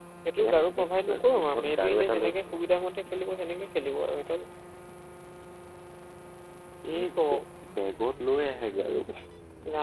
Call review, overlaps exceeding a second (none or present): present